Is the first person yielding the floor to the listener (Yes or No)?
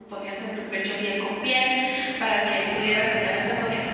No